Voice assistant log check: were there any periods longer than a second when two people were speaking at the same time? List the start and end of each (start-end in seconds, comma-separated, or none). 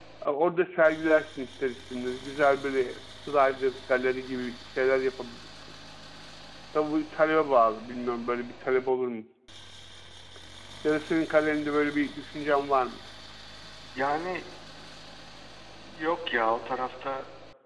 none